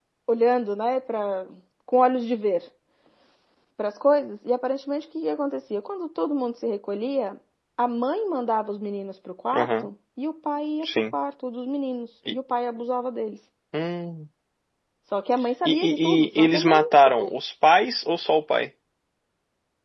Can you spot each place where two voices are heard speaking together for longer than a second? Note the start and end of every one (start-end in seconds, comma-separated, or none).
15.6-17.3